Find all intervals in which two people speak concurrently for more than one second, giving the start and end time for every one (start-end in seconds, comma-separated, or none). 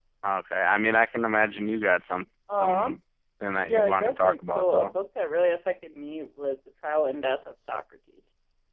3.6-4.9